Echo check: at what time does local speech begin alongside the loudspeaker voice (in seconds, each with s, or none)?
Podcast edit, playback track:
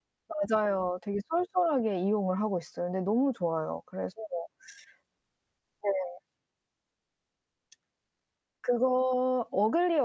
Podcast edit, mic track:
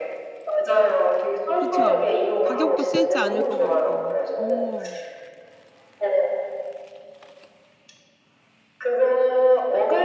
1.6 s